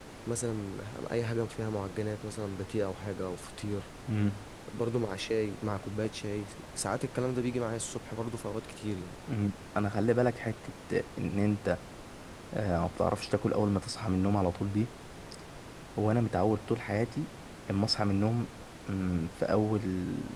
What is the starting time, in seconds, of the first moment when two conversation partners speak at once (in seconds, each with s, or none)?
none